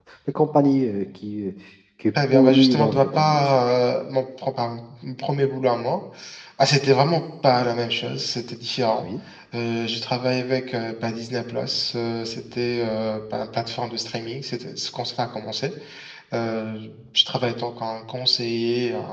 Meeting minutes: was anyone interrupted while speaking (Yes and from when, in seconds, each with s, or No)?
Yes, from 2.3 s